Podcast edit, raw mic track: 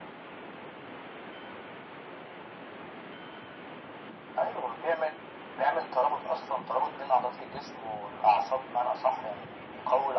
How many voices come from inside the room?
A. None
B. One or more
A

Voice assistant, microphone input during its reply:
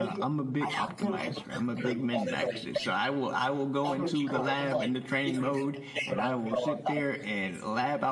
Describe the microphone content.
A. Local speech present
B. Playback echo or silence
A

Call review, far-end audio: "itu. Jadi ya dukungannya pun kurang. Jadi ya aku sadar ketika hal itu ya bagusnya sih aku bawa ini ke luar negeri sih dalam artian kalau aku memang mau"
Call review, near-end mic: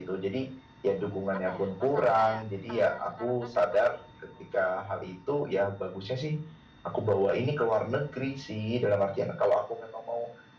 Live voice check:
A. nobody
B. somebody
B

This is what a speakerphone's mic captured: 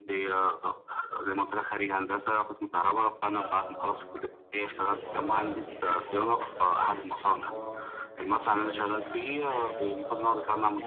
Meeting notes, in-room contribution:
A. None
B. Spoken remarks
B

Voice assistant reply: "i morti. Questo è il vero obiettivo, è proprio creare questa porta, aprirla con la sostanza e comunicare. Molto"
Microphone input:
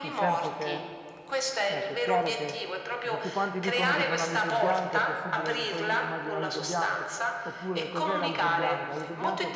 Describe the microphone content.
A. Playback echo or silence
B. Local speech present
B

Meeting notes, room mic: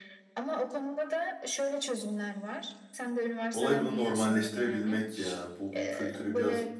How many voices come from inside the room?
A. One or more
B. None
A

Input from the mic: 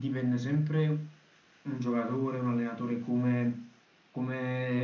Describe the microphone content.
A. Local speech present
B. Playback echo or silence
B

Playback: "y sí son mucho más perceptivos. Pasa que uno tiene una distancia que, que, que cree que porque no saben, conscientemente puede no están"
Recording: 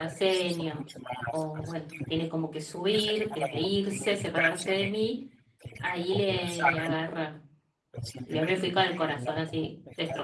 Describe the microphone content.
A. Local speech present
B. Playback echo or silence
A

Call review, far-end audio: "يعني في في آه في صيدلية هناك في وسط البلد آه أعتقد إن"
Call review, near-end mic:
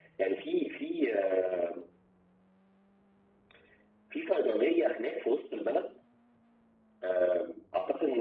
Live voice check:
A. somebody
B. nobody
B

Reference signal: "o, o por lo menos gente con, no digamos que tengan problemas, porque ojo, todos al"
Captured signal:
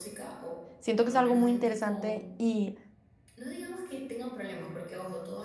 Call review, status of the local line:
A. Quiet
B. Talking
B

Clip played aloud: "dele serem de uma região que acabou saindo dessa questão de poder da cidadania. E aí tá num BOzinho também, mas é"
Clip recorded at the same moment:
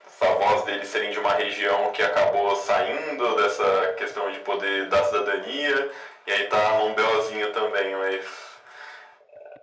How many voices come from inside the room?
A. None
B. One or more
A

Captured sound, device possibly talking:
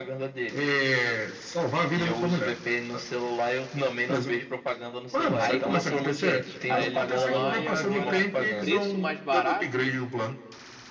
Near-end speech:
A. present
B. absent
A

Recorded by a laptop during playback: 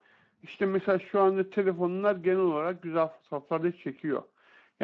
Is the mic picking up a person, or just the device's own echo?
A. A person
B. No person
A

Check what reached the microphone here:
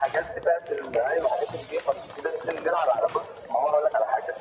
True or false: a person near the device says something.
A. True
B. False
B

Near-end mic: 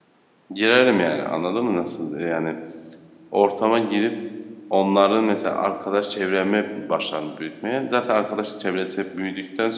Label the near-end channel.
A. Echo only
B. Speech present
B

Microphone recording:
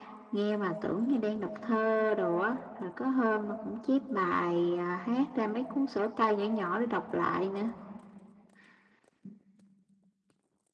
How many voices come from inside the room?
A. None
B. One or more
A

